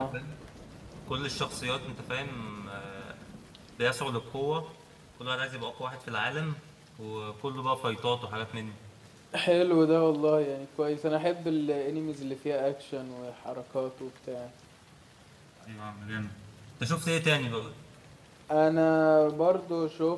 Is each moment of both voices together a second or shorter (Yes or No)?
Yes